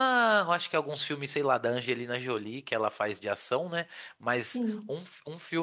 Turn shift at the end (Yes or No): No